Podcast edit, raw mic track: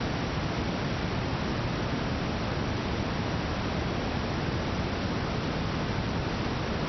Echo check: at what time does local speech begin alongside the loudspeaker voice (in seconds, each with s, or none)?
none